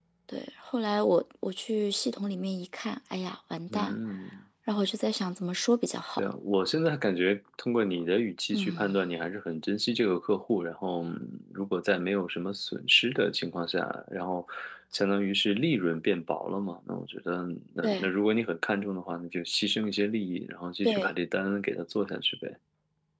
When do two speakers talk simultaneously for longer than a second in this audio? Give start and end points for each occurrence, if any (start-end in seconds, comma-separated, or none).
none